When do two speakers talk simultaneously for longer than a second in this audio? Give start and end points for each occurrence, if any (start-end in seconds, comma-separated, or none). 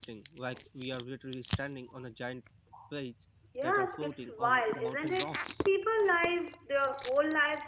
3.6-5.3